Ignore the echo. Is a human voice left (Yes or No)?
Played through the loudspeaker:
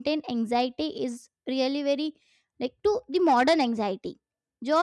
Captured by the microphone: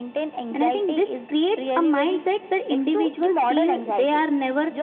Yes